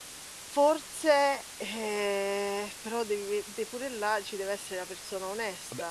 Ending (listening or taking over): taking over